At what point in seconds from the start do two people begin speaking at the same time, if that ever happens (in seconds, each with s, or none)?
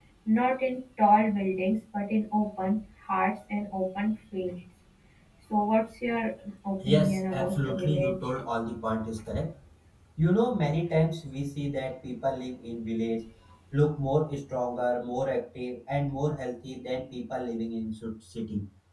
6.8 s